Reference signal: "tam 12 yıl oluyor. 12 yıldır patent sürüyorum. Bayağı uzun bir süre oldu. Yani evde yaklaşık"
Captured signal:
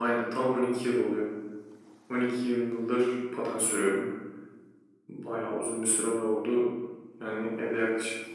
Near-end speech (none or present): none